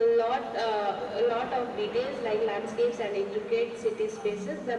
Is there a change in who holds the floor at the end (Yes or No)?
No